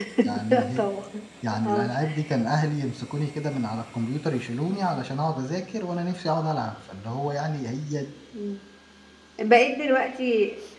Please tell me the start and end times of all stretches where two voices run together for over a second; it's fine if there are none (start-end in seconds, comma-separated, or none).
none